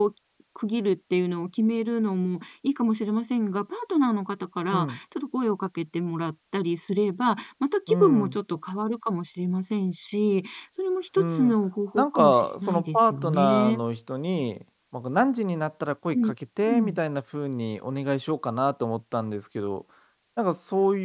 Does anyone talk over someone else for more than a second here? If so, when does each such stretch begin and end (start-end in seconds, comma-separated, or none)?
11.9-13.8